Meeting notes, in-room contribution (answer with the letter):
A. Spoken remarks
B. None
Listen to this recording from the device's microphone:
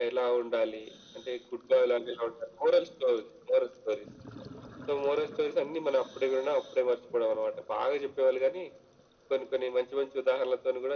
B